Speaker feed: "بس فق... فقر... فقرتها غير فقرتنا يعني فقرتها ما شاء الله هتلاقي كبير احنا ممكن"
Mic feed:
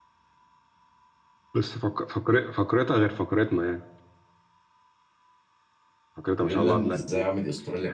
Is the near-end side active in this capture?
Yes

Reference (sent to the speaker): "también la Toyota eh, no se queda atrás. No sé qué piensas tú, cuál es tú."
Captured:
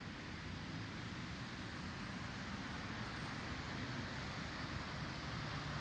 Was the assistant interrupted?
No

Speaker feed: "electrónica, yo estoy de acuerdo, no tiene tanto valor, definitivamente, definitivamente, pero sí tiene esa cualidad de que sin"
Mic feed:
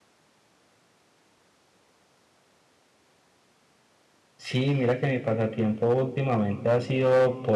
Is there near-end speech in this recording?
Yes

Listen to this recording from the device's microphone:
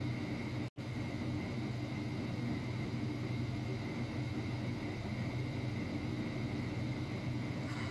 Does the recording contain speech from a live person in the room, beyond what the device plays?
No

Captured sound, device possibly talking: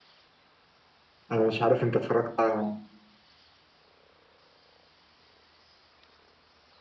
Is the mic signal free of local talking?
No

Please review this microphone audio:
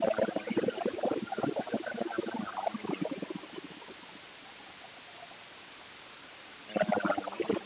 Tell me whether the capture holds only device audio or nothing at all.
Yes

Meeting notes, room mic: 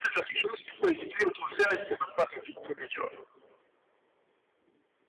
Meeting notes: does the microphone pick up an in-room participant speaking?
No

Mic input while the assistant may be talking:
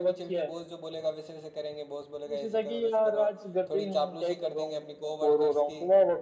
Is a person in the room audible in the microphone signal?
No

